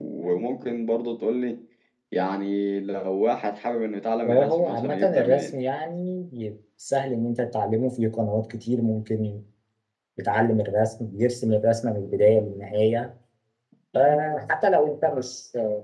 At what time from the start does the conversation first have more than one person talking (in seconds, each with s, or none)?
4.2 s